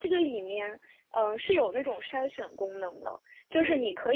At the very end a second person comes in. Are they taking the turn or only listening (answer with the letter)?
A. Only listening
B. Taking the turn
A